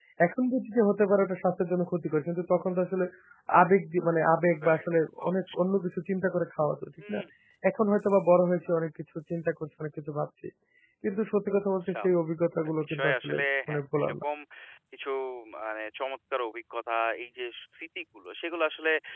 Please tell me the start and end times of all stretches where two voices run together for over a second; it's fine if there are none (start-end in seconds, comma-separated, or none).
12.8-14.1